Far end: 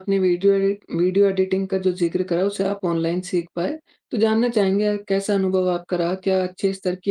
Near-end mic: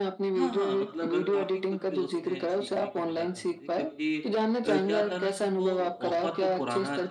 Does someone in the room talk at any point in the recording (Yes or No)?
Yes